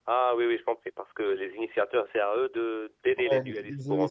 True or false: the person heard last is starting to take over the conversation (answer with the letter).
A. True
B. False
A